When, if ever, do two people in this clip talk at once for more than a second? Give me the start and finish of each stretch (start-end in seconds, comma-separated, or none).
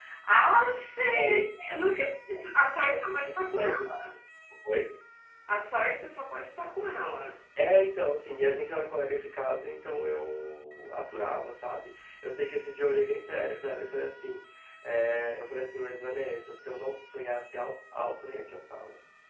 none